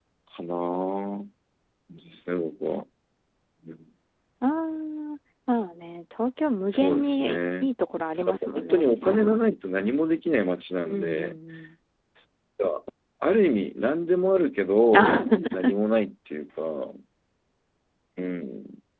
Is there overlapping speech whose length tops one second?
Yes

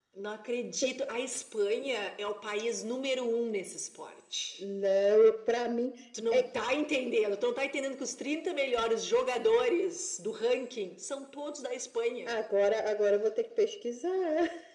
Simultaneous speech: No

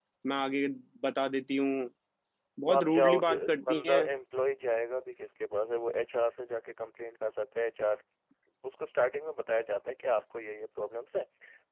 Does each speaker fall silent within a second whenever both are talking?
No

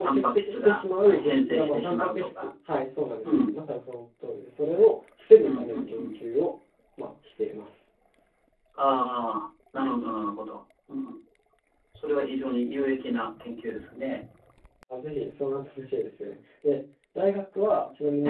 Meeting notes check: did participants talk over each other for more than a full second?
Yes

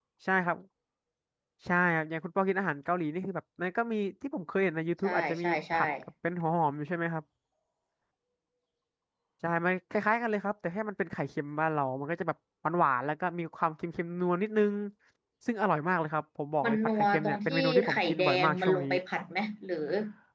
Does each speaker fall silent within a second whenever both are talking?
No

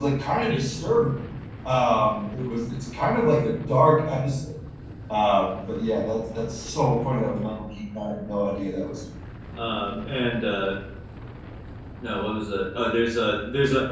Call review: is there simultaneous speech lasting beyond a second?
No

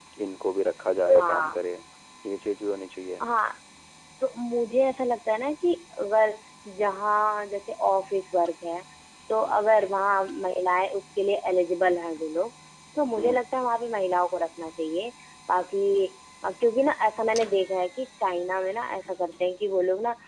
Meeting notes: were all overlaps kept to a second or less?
Yes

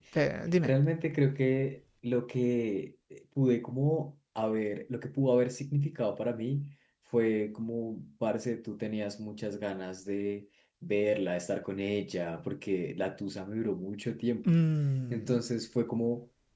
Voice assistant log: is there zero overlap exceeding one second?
Yes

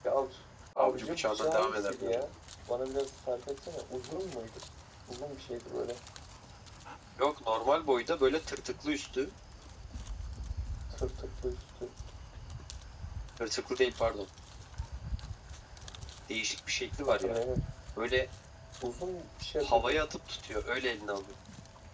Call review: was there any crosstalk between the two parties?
Yes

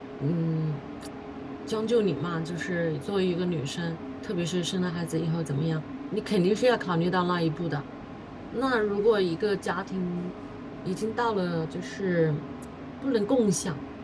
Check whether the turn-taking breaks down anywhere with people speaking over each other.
No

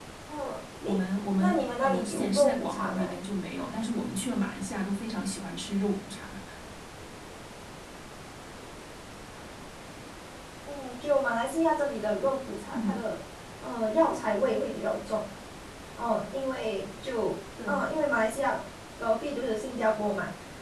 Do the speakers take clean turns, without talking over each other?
No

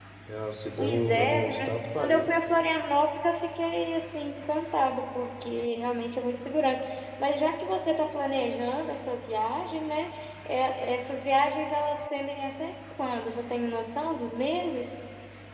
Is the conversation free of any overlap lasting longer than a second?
No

